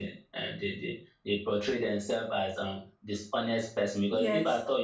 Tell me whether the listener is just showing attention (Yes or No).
Yes